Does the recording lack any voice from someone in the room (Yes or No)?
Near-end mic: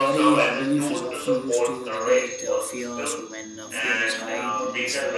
No